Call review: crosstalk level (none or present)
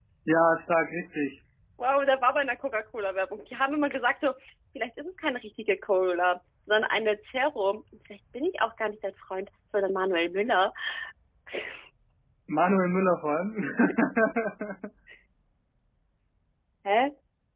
none